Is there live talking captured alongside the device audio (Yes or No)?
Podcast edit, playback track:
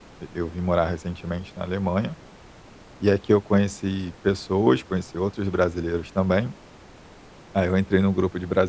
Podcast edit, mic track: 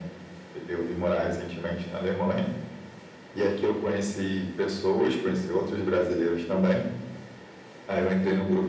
No